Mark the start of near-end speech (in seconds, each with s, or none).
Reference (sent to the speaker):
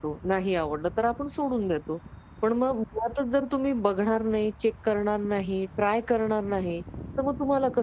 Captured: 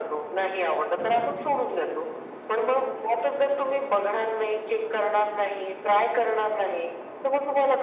none